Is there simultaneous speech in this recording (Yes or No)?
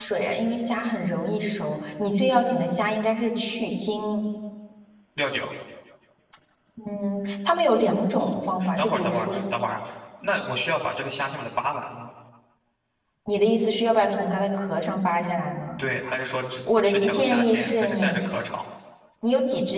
Yes